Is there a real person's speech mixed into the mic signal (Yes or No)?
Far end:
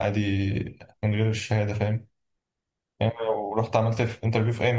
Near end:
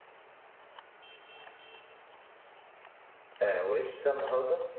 Yes